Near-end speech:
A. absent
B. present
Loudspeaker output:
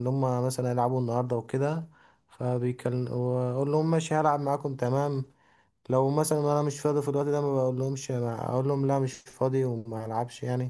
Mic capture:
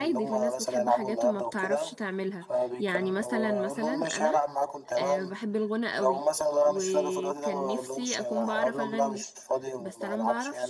B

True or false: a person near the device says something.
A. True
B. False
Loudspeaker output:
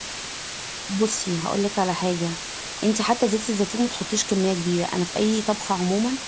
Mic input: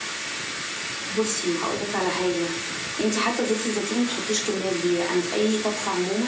B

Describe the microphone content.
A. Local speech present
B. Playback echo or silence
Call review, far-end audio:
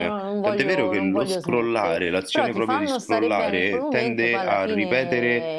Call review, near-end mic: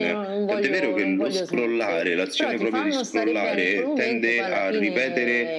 B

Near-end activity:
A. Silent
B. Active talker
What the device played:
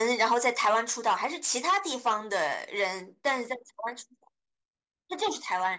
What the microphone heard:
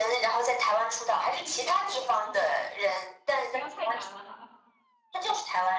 B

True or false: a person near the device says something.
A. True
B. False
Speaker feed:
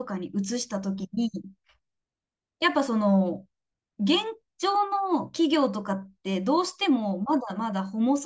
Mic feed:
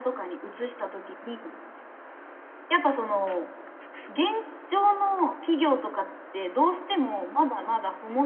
B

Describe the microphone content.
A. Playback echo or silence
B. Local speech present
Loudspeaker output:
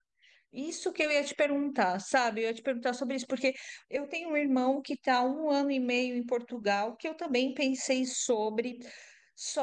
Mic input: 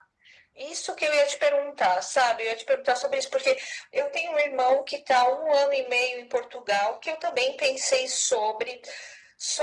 A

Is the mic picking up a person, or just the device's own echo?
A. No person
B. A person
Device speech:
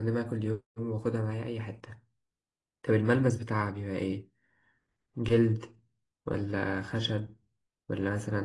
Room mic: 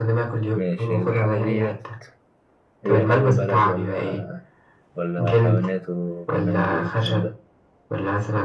B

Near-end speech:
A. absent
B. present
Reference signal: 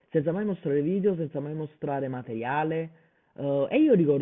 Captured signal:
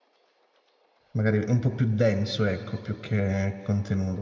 B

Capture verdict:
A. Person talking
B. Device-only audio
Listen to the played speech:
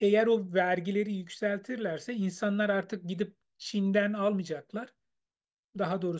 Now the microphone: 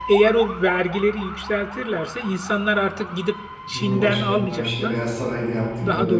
A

